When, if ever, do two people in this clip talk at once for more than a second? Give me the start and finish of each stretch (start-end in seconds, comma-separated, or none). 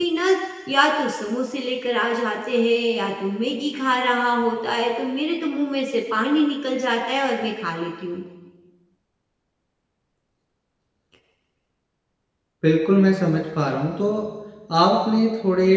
none